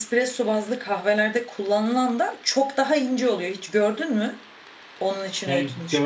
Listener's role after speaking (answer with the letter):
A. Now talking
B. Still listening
A